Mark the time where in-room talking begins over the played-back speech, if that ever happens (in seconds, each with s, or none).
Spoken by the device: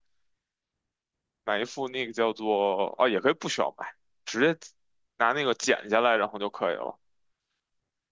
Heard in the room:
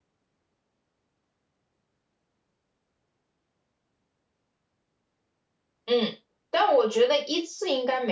5.8 s